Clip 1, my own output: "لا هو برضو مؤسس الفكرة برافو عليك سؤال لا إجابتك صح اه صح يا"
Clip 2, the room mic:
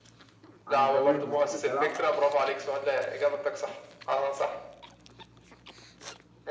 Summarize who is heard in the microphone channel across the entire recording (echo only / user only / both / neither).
both